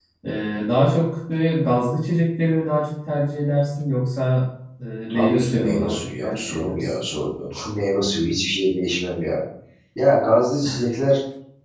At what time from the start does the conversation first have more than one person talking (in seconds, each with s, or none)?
5.1 s